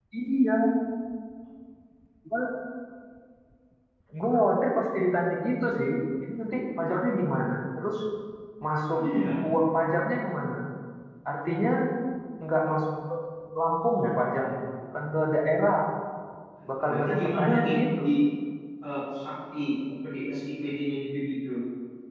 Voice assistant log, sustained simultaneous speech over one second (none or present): present